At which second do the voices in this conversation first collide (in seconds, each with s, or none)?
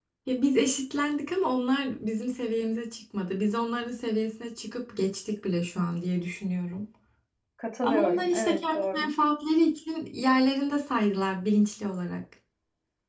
7.8 s